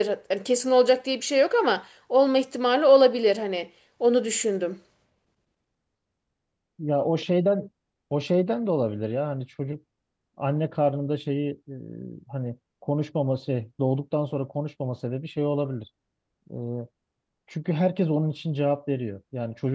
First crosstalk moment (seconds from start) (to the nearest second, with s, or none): none